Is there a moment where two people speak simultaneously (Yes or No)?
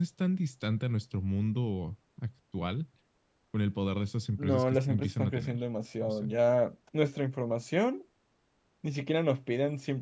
Yes